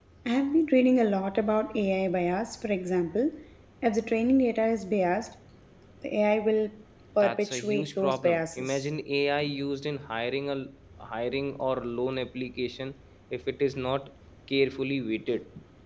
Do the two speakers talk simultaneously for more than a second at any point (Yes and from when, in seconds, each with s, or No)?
Yes, from 7.2 s